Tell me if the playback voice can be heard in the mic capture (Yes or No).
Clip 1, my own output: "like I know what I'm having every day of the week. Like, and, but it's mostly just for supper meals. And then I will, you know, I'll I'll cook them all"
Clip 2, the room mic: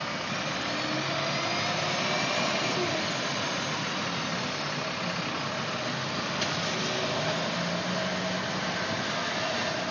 No